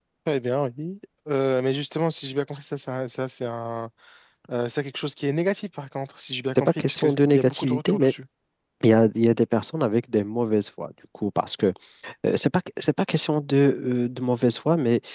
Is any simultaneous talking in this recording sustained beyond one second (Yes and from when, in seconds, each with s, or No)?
Yes, from 6.5 s